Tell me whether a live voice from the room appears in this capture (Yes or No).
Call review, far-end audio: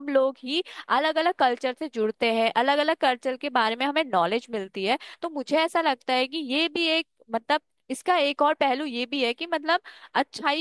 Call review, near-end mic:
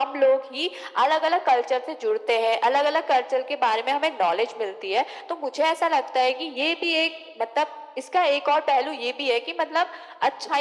No